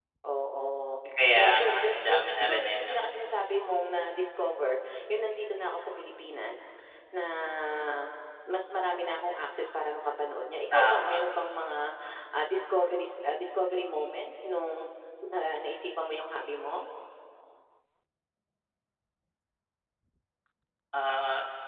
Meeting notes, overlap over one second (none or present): present